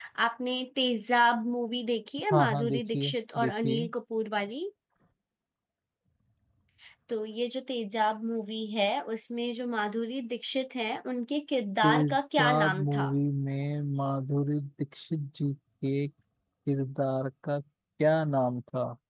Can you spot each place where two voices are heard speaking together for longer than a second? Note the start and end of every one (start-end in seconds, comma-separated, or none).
2.3-3.8, 11.8-13.1